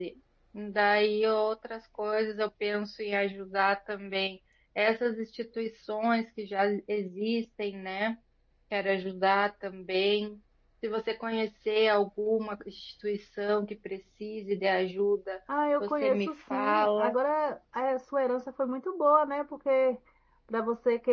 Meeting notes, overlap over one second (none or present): present